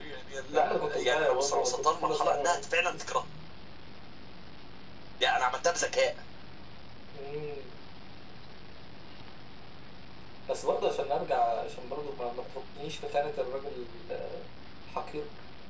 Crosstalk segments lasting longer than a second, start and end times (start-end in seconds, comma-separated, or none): 0.5-3.2